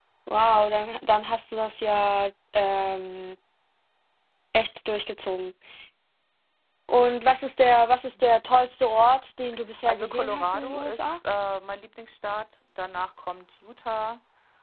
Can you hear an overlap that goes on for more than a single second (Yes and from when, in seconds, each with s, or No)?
Yes, from 9.8 s